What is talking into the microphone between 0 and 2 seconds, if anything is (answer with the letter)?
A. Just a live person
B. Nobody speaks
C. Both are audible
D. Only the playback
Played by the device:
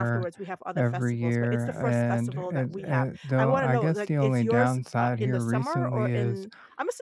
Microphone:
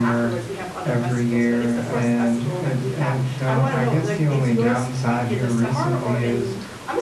D